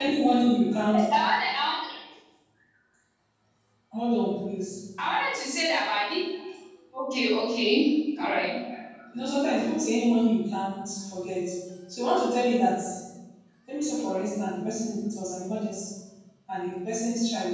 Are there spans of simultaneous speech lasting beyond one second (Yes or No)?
No